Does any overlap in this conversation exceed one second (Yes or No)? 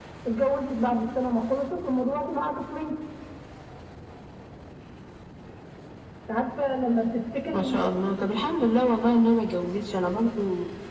No